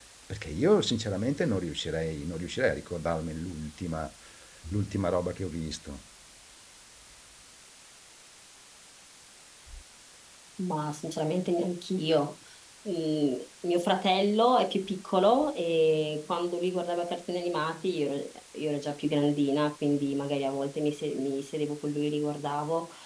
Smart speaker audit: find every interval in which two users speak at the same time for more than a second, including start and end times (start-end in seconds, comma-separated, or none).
none